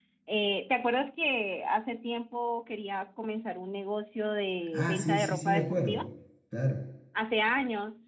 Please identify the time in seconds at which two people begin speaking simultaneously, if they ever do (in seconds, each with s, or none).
4.7 s